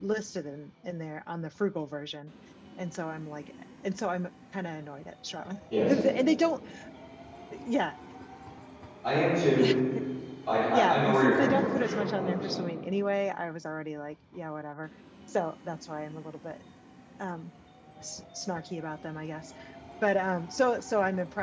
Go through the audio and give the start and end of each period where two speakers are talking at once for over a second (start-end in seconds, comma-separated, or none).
10.7-12.6